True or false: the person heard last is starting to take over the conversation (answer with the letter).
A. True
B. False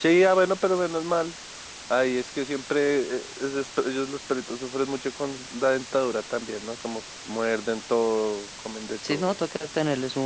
A